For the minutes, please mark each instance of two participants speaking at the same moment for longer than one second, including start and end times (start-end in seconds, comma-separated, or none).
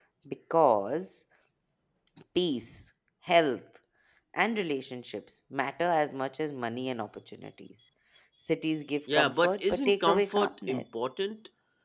9.1-11.0